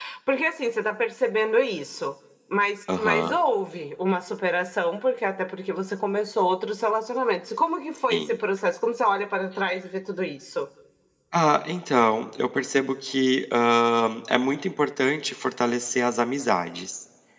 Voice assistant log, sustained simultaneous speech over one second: none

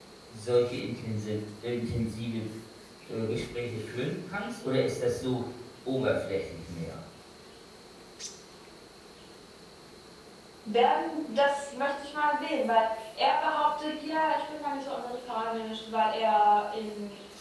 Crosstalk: none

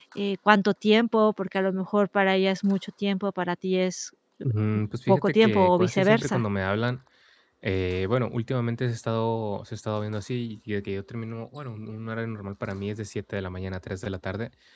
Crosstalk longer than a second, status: present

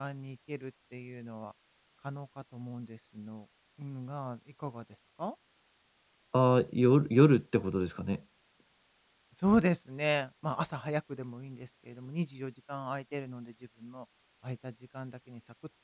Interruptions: none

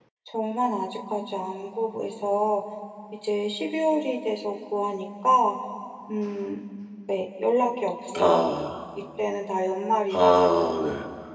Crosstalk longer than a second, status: none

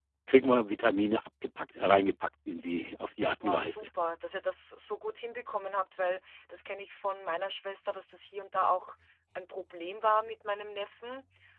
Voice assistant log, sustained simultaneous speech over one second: none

